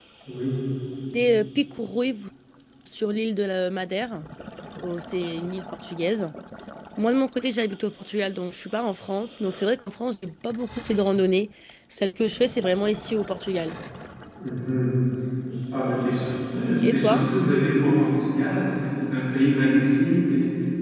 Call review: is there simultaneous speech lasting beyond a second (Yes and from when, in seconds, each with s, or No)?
No